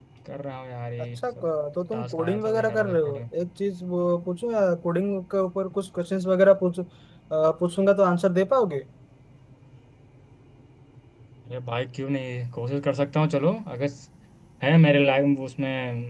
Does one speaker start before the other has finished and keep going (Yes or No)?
Yes